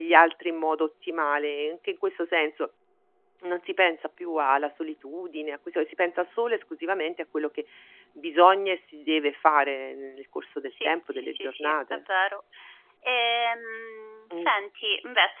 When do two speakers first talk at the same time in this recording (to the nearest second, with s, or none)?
11 s